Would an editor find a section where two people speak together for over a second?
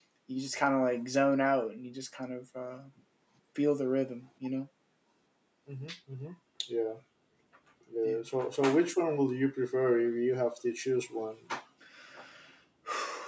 No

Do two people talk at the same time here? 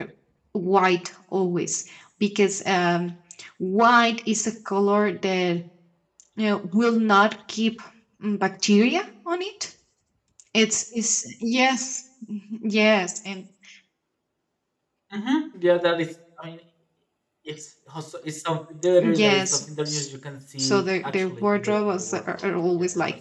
Yes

